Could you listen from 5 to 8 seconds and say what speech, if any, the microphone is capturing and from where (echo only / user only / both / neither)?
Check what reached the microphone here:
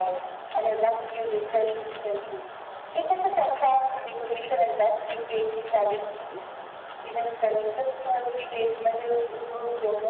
echo only